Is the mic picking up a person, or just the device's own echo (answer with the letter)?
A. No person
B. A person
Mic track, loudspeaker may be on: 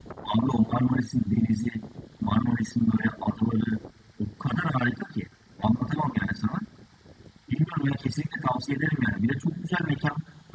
A